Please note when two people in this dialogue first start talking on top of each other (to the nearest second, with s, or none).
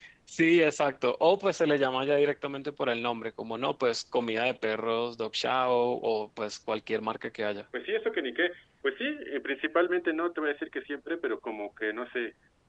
none